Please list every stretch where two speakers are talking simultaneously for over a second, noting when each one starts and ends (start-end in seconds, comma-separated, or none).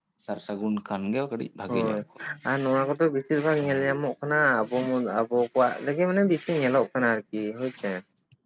none